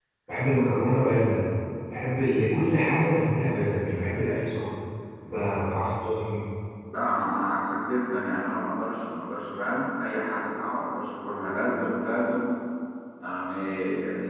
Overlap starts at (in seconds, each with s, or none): none